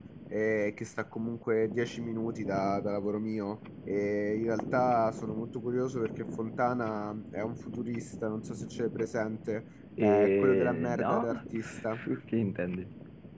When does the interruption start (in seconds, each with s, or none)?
10.0 s